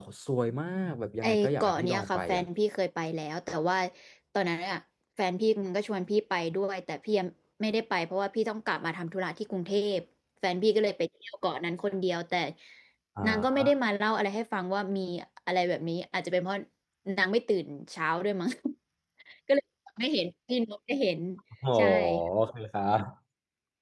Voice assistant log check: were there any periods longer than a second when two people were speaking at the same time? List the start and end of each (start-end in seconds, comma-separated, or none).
1.2-2.4